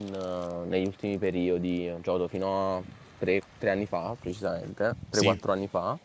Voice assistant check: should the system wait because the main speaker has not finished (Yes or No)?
Yes